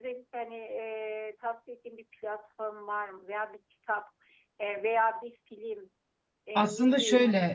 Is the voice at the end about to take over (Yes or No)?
No